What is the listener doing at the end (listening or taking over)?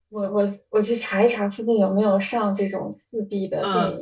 taking over